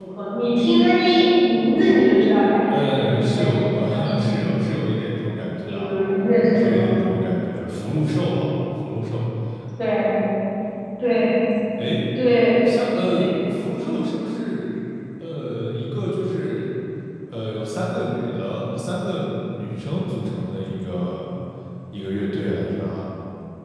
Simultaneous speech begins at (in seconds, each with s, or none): 2.7 s